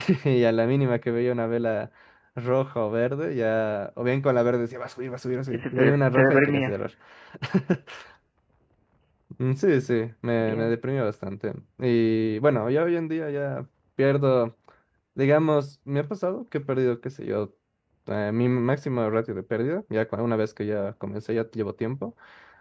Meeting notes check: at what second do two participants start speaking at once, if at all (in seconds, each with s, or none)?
5.5 s